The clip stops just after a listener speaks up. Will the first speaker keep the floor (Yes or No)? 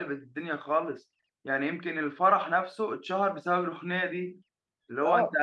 No